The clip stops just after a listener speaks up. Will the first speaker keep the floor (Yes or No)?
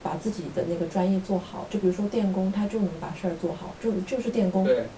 Yes